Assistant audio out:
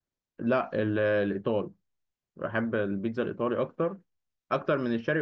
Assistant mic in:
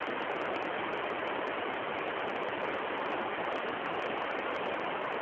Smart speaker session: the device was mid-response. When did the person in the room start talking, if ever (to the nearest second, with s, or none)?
none